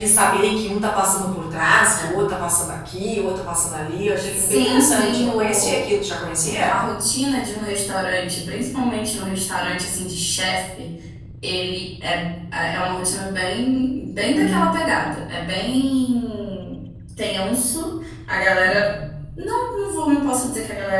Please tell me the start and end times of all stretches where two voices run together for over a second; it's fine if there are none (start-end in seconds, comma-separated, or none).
4.2-5.9